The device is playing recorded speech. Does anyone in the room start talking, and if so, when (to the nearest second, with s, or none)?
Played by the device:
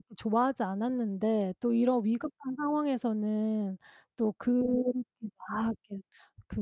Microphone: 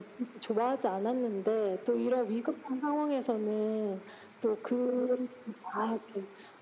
none